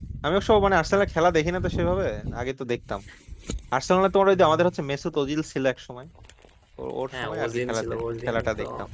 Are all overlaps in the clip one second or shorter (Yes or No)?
No